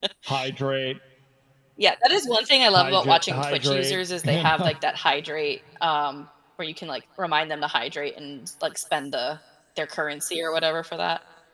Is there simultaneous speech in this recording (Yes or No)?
Yes